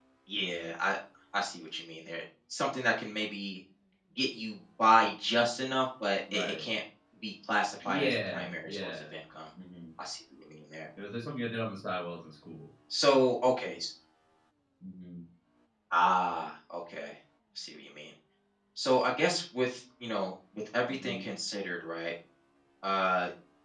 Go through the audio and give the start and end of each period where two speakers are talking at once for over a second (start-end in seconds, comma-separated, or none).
7.8-9.0